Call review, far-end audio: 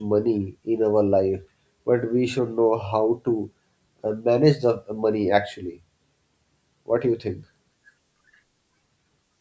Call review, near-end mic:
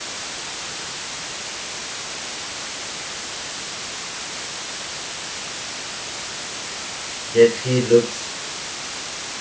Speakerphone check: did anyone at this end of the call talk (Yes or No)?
Yes